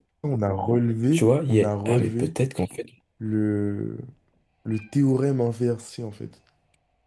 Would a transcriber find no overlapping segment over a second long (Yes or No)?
No